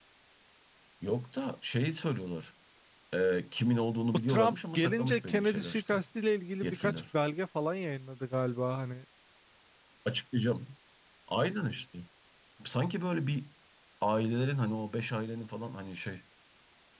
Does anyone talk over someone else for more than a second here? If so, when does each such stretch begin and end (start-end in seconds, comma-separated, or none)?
4.3-6.0